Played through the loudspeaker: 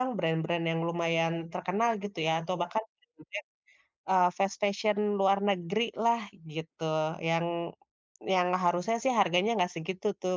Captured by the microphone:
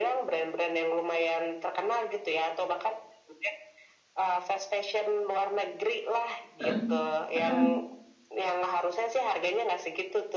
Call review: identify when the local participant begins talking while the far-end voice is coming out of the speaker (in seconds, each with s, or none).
6.6 s